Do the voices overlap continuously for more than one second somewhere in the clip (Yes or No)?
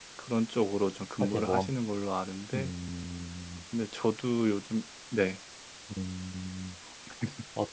No